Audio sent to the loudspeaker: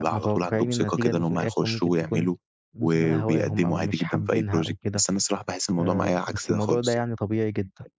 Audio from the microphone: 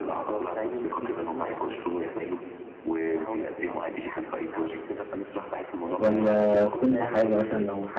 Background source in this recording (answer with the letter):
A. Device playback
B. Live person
A